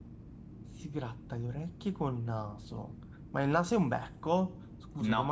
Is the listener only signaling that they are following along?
Yes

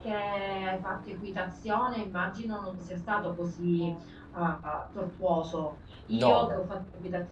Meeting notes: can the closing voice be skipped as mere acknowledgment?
Yes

